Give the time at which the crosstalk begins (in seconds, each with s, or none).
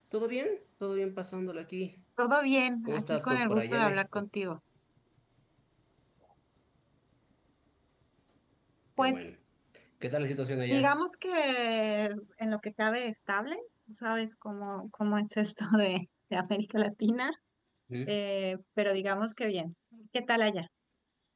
2.9 s